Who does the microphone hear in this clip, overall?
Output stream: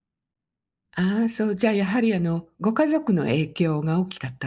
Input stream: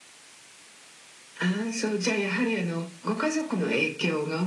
echo only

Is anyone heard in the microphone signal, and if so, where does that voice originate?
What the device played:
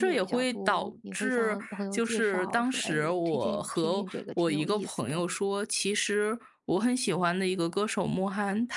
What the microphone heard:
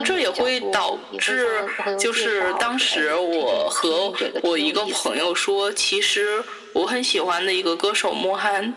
echo only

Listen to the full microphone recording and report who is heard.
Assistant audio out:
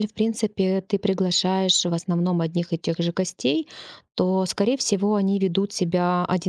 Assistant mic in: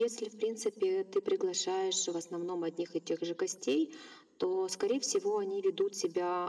echo only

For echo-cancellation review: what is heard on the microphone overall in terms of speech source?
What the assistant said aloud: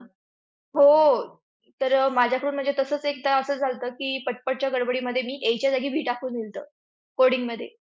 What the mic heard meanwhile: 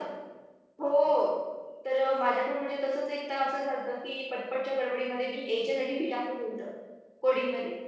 echo only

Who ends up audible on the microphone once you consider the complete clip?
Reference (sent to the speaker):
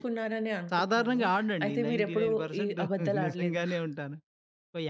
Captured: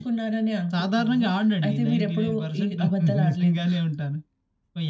echo only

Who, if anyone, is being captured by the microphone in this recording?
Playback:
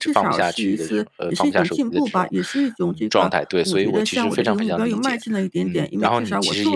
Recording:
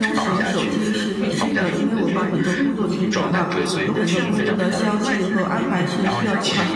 both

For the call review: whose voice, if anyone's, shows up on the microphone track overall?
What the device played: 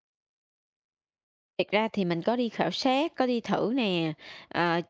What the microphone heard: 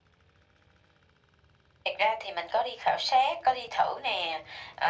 echo only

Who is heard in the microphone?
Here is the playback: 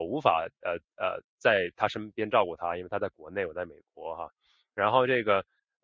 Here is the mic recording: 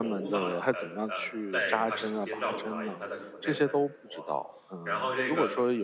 both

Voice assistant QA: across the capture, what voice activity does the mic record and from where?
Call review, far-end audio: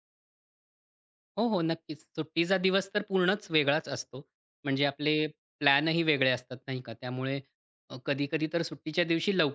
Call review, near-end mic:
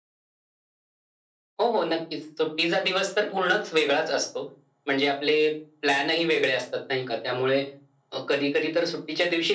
echo only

